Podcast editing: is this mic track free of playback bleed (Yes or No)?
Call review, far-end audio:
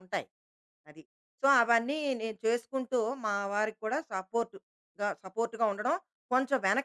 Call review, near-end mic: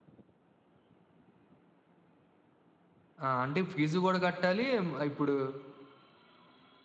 Yes